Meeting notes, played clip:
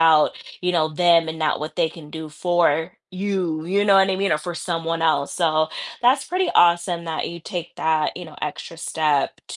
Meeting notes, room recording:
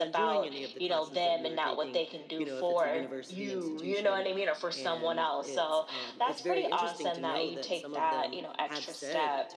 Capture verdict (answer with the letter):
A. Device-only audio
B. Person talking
B